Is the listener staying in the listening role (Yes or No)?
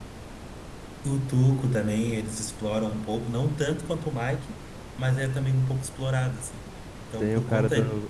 No